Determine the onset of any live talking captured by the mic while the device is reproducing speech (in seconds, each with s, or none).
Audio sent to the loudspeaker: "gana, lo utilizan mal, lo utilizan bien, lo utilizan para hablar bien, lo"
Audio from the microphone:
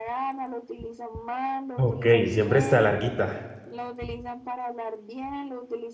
1.8 s